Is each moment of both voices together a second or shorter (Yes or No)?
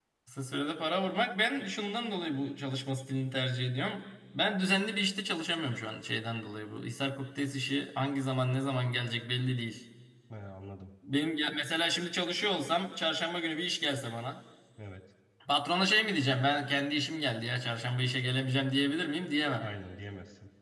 Yes